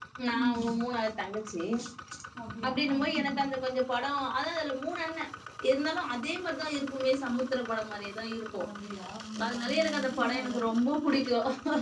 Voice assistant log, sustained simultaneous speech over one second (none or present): present